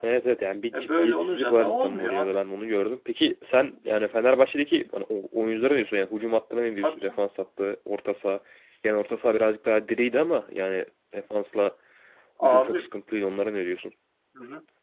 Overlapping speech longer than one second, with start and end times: 0.7-2.3

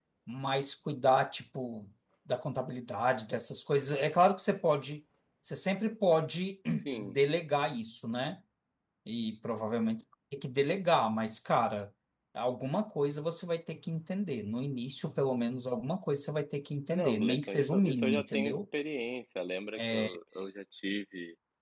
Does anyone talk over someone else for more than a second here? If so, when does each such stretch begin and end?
16.9-18.6

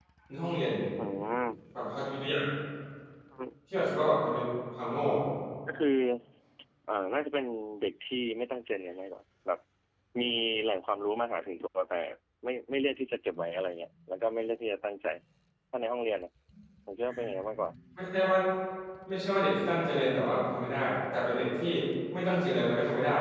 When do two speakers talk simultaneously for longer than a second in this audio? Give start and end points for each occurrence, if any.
none

